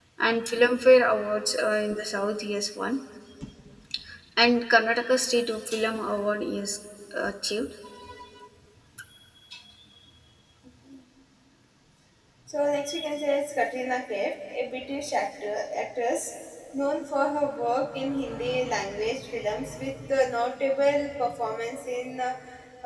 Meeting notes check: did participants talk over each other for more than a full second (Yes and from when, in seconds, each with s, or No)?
No